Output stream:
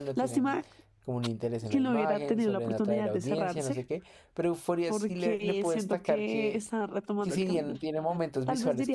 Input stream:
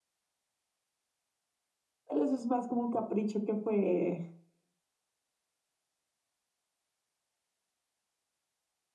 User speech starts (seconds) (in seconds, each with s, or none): 2.1 s